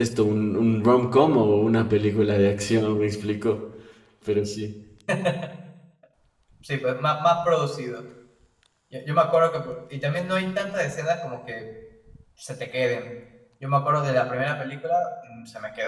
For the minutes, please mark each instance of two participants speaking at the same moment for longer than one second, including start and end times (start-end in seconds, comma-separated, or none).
none